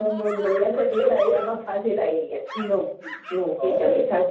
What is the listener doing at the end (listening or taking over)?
listening